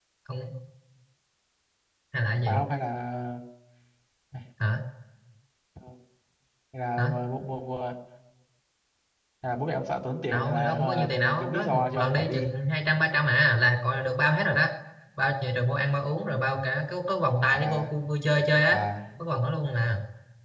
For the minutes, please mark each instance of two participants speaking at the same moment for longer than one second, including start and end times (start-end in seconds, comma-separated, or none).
10.3-12.5